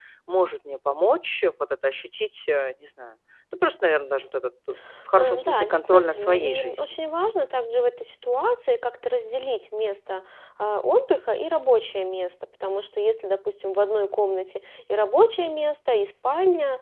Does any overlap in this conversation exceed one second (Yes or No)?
Yes